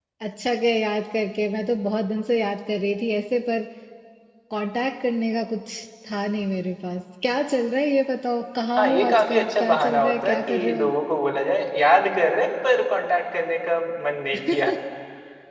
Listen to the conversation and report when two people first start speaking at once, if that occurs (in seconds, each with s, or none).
8.8 s